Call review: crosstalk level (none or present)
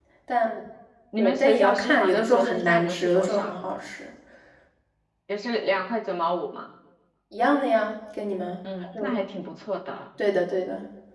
present